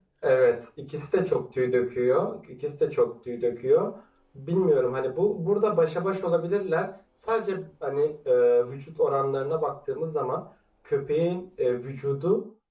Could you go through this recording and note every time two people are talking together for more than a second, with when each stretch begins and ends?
none

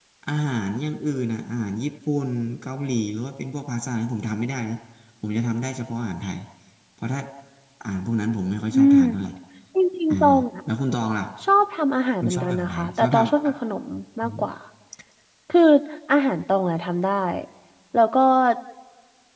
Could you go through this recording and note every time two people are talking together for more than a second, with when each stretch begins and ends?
12.2-13.5

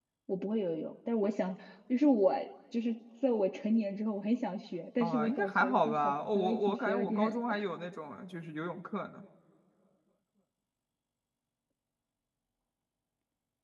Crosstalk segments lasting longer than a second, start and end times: 5.0-7.4

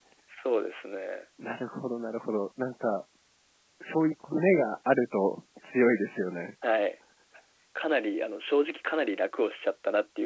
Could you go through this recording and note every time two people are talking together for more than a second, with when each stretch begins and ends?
none

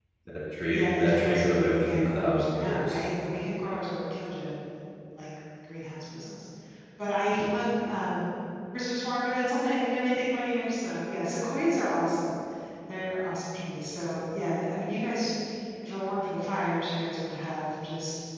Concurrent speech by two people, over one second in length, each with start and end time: 0.7-3.0

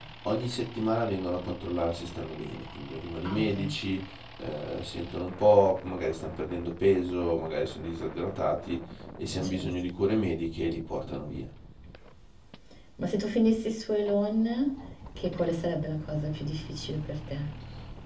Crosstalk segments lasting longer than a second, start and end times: none

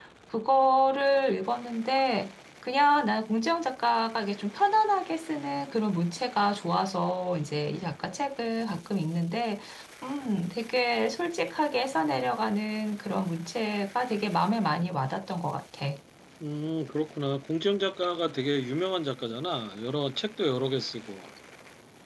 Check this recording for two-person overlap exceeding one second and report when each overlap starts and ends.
none

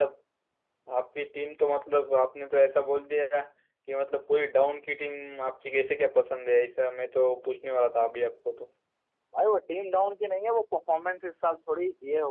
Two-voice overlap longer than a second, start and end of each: none

